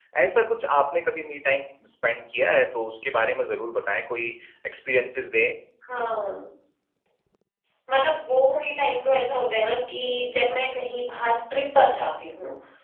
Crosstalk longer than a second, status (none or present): none